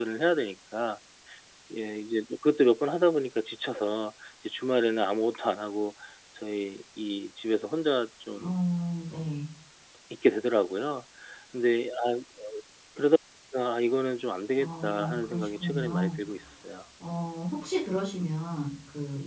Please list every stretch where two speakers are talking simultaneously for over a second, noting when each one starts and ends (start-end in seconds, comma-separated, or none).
14.6-16.1